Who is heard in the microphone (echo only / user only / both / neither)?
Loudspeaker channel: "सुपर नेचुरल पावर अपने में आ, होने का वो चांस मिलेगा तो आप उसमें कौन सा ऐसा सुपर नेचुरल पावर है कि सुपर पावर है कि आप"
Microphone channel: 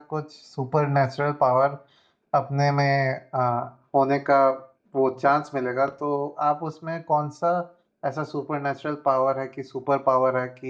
echo only